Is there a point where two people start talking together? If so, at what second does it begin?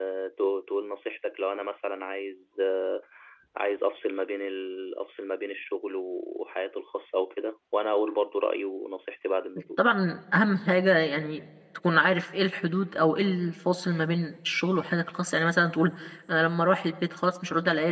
none

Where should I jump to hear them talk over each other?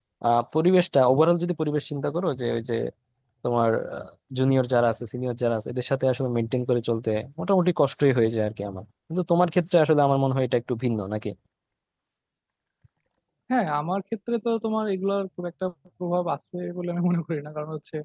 none

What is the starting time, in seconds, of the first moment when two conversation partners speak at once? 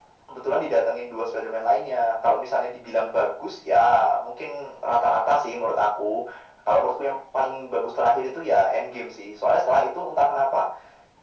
none

